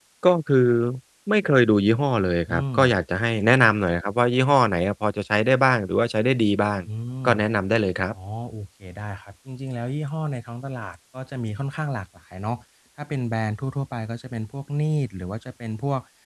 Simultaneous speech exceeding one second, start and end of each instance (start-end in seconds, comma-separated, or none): none